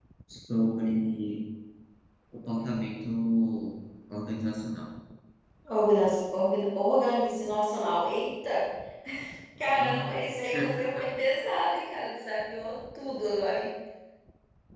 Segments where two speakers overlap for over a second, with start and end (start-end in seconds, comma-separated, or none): none